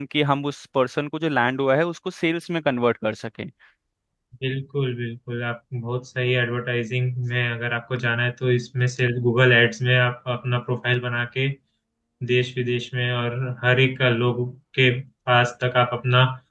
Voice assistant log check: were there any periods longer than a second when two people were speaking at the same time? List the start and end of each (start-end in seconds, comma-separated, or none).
none